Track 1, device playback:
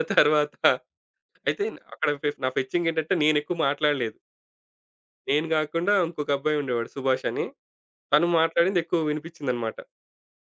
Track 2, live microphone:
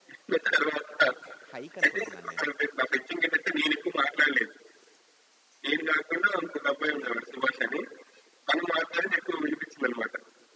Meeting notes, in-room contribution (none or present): present